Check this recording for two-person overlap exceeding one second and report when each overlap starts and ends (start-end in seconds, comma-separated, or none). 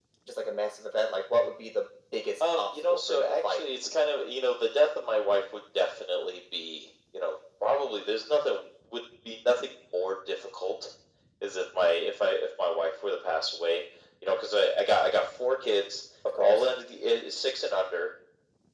2.4-3.6